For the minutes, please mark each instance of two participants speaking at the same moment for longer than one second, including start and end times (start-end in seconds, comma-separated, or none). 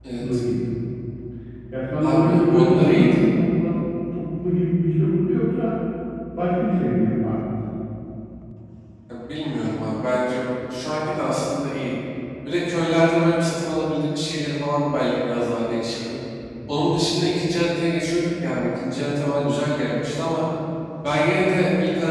2.0-3.2